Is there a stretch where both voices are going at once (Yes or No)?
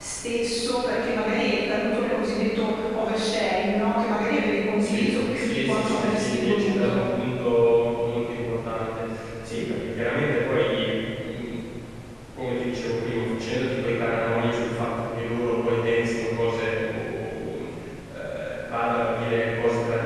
Yes